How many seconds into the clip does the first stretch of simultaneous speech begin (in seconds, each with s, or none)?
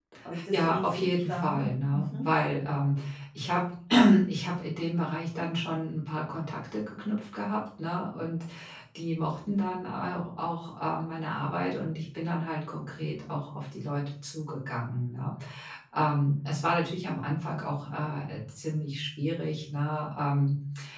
0.5 s